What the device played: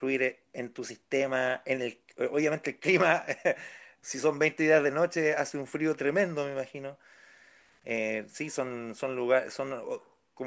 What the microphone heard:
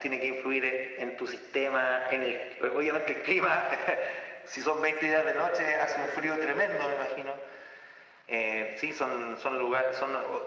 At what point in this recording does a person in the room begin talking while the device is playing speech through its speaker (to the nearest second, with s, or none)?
none